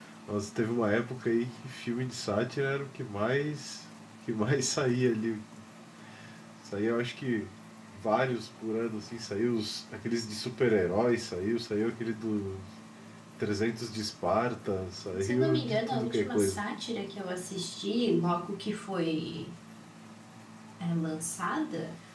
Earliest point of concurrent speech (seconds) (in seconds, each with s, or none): 15.1 s